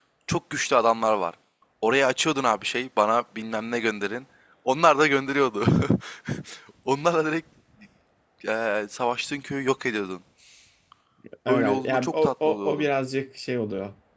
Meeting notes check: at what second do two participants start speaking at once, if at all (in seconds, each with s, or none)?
11.5 s